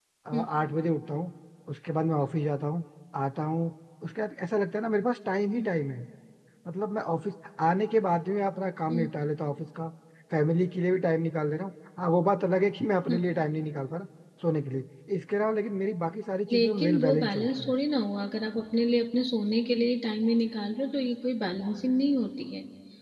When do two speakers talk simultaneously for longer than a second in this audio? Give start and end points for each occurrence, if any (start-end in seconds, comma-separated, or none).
16.5-17.7